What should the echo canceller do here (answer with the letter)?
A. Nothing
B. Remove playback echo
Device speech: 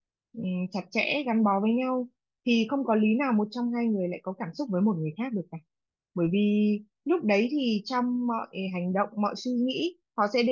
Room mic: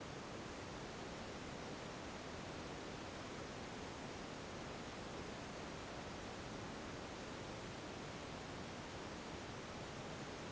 A